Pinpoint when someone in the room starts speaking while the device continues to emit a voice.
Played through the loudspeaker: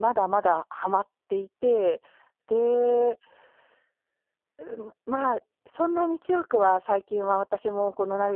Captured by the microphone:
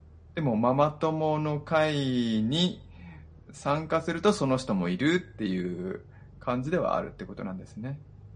0.3 s

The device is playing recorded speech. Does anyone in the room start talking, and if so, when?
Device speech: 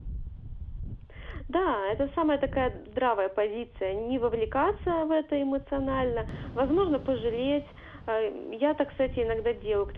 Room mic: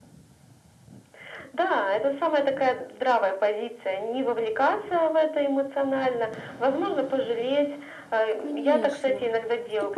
8.4 s

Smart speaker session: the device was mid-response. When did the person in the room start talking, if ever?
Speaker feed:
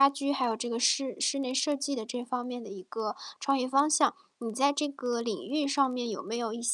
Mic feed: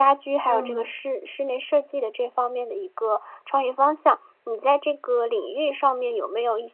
0.5 s

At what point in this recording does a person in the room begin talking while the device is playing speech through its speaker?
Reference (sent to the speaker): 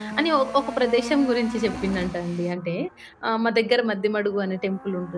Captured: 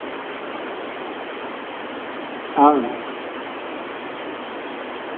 2.5 s

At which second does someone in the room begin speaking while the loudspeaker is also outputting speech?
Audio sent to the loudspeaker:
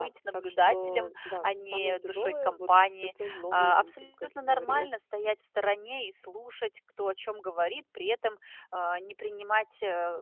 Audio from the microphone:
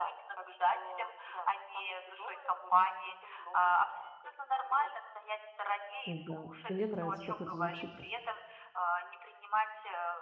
6.0 s

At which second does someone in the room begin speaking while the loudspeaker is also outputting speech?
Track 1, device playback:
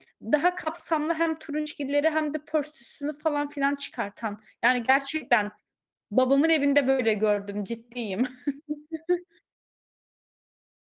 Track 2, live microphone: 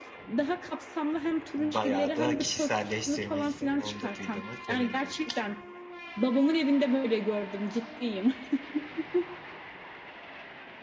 1.6 s

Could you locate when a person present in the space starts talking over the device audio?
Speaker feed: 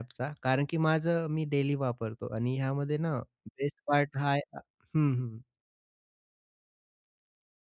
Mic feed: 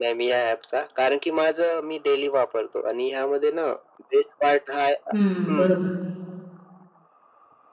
5.1 s

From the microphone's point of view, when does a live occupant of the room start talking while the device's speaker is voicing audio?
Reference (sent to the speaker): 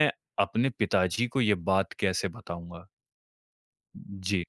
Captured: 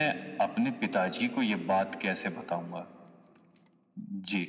none

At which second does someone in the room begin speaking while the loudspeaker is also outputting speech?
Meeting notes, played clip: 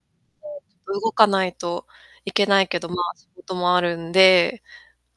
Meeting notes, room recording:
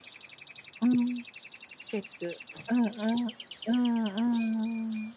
0.8 s

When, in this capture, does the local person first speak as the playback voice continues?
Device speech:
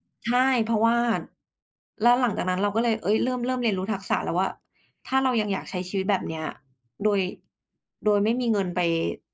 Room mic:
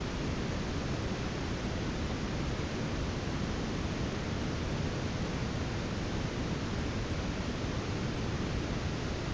none

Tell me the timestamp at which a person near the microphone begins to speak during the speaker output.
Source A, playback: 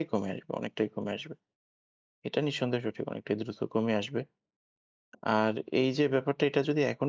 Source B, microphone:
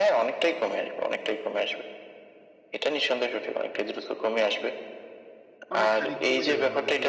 5.7 s

